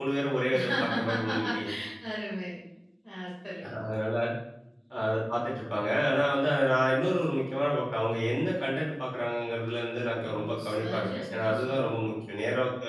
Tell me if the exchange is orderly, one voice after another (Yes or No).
No